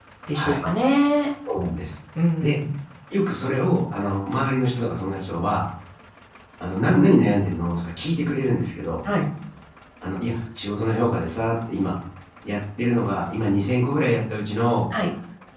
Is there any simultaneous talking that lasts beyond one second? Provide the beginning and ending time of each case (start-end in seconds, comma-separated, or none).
none